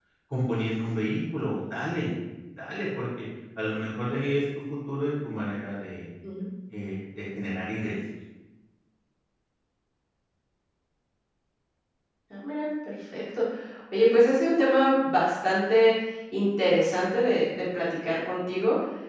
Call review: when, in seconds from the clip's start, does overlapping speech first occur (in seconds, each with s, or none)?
none